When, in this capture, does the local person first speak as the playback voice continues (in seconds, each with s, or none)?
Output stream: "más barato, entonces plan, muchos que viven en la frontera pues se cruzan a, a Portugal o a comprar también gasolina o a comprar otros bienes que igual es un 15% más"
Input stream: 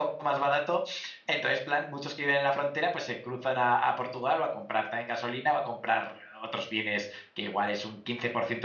none